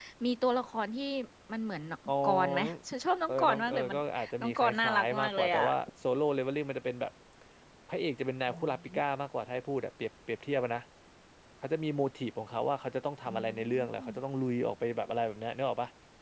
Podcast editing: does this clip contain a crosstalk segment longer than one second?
Yes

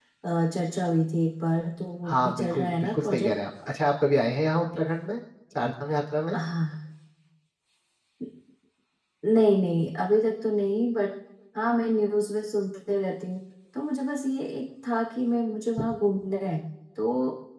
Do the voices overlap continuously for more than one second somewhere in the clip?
Yes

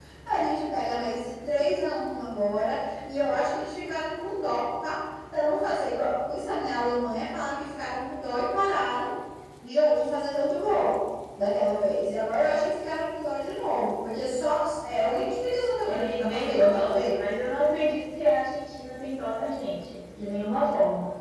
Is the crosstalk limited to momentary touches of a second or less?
No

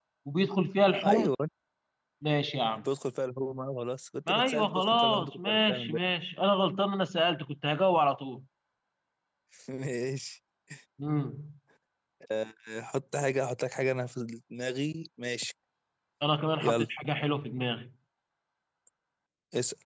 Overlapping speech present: Yes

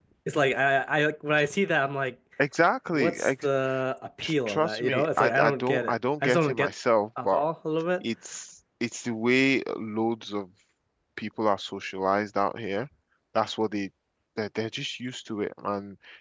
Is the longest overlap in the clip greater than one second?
Yes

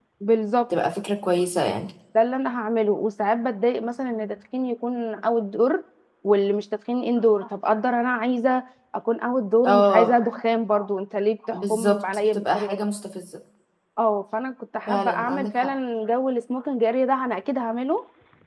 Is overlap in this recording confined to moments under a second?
No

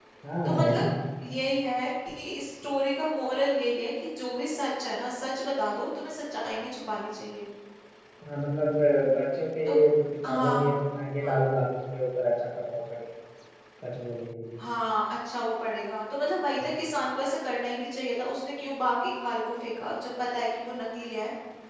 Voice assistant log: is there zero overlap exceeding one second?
Yes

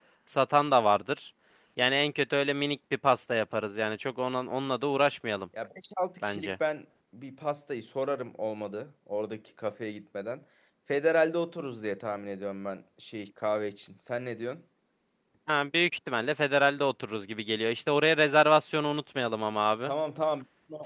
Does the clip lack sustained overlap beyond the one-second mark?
Yes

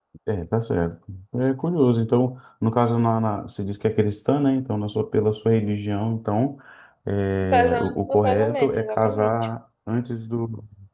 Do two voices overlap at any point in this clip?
Yes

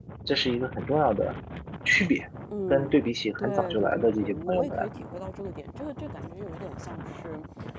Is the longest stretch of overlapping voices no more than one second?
No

